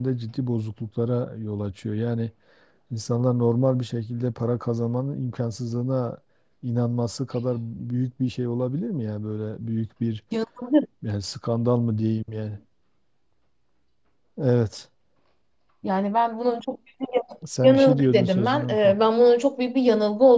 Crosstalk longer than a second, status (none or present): present